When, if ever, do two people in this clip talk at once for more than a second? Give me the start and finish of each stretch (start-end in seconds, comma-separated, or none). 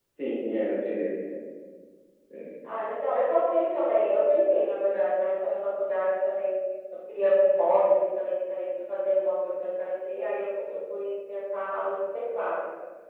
none